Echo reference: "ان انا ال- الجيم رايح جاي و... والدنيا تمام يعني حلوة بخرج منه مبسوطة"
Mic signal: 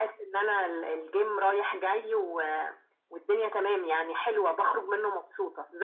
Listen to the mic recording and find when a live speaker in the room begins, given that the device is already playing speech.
none

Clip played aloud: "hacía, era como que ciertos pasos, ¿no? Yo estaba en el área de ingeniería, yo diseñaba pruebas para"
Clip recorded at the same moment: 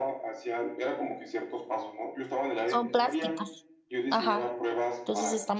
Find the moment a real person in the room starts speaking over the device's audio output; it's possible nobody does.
2.7 s

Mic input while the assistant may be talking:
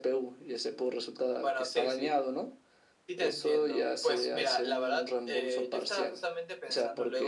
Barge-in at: none

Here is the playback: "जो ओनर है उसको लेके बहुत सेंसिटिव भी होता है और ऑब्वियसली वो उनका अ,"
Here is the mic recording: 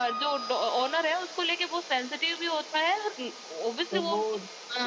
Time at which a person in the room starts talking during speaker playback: 3.9 s

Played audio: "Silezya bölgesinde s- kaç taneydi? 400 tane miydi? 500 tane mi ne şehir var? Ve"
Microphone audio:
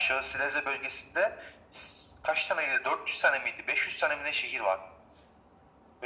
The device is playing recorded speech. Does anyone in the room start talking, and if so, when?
none

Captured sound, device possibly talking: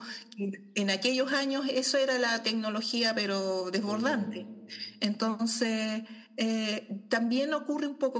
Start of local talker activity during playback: 3.8 s

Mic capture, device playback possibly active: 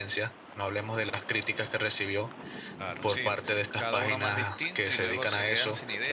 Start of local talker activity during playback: 2.7 s

